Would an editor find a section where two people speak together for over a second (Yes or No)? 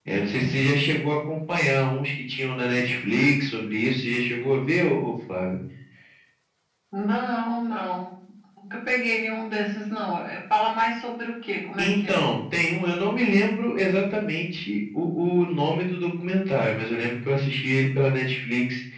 No